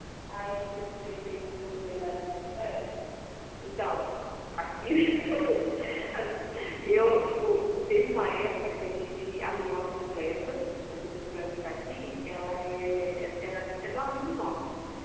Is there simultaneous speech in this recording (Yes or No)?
No